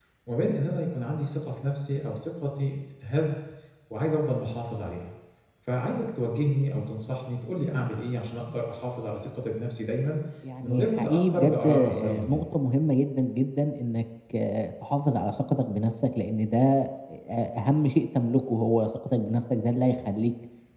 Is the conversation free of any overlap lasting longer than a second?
No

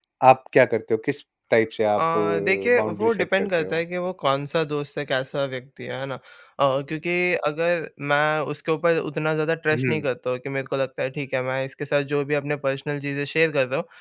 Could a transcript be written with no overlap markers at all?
No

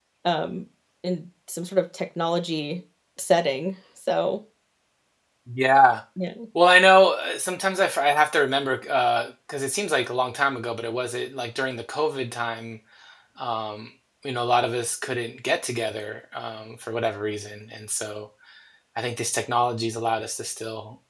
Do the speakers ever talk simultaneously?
No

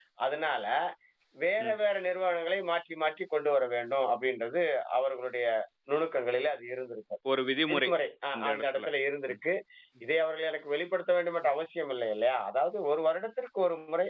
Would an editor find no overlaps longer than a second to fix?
Yes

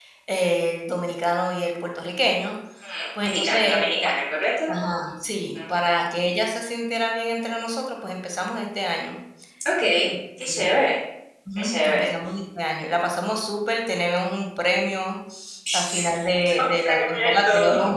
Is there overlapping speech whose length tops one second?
Yes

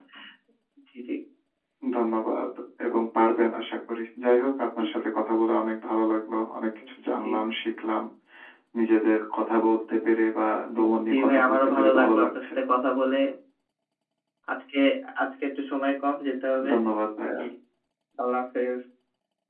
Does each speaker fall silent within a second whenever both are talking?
No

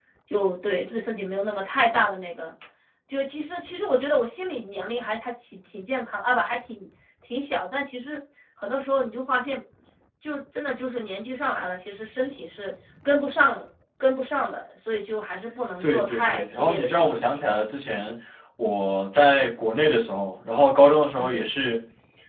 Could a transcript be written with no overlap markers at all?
No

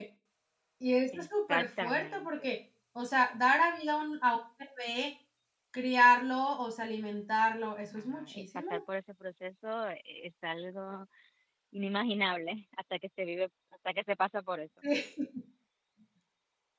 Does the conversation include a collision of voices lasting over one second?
Yes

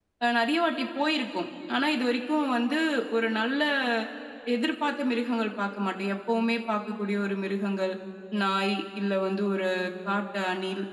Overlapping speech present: No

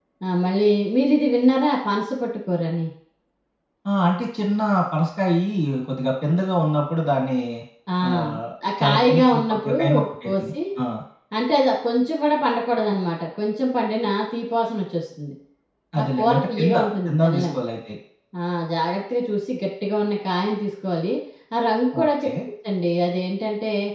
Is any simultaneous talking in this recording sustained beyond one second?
Yes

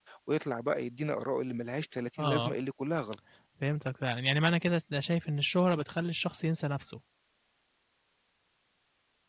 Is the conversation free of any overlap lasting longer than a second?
Yes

